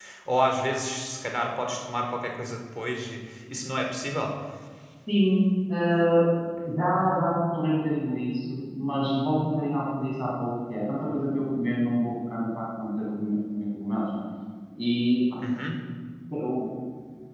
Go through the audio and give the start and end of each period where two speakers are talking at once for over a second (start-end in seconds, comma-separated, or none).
none